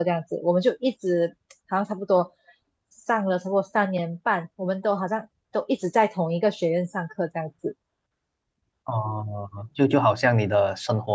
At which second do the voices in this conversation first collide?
none

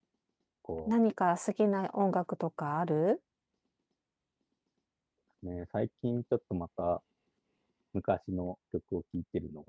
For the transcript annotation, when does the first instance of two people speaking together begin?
none

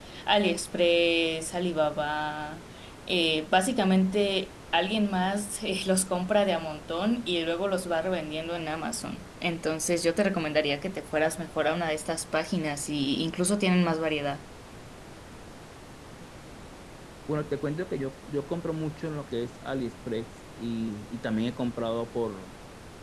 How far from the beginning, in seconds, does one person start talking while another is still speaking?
none

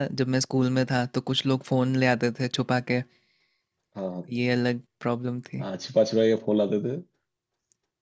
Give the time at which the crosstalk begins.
none

